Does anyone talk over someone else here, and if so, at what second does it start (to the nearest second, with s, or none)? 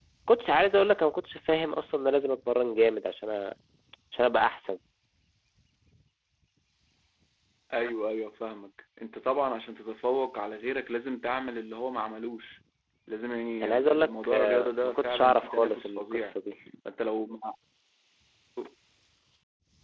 14 s